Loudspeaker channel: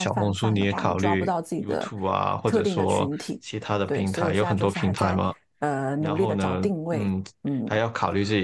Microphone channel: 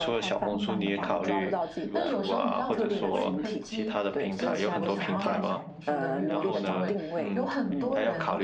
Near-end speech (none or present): present